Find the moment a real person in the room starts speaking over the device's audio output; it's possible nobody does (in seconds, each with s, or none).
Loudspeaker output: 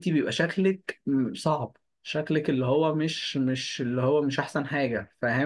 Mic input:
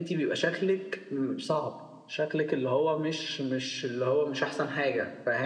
none